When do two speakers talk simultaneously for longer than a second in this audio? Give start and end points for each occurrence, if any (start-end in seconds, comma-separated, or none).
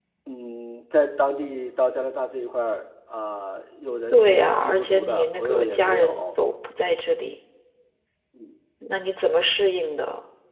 4.1-6.3